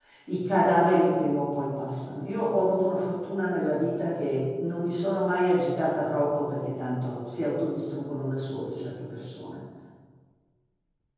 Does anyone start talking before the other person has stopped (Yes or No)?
No